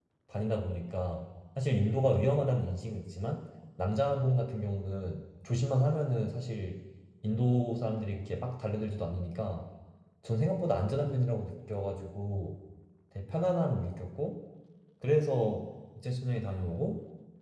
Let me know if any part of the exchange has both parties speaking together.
No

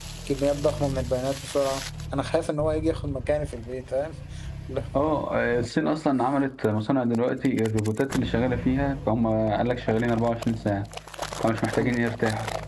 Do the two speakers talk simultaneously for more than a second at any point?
No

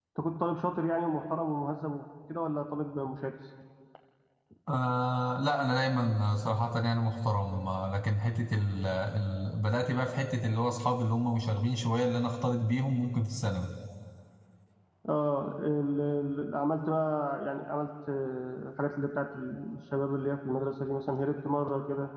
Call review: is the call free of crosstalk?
Yes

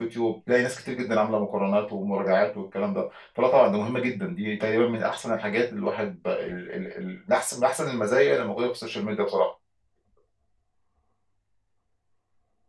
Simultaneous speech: No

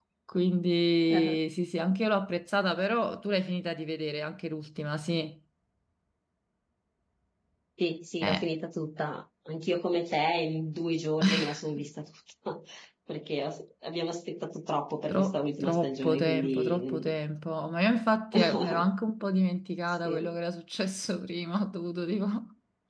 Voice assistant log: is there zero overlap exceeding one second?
No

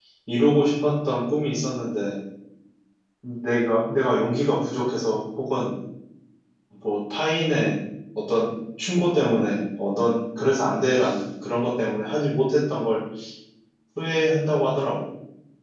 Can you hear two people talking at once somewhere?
No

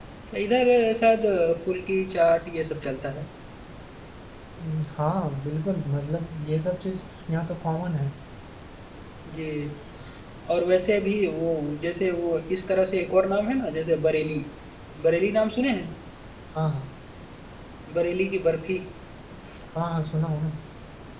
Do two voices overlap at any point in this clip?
No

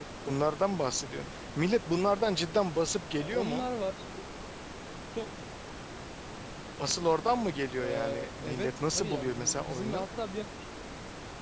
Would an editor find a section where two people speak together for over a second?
Yes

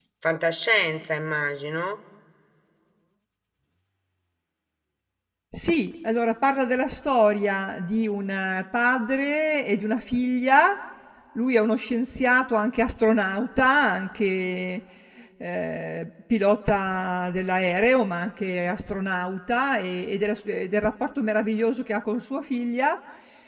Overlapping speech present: No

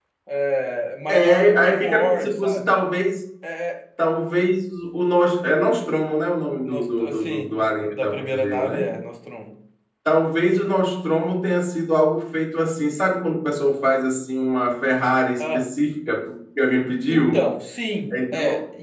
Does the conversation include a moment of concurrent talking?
Yes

